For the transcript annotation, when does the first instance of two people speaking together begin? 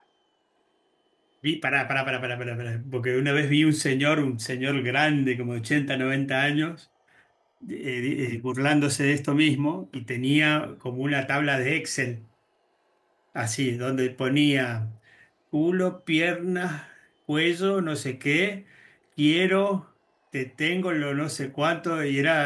none

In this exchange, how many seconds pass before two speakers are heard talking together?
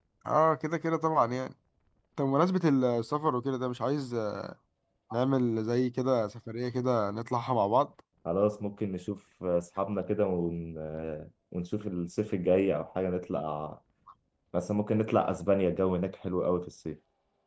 none

